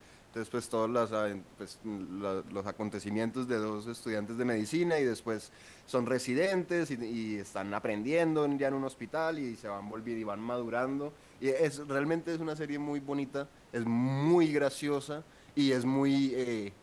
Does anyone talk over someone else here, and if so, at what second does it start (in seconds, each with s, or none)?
none